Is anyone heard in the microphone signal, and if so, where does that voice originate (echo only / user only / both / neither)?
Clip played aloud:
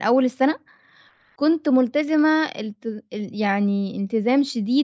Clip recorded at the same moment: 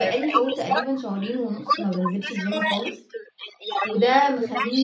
both